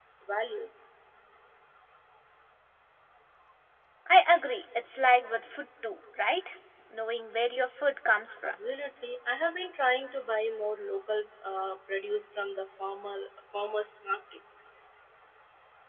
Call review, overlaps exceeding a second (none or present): none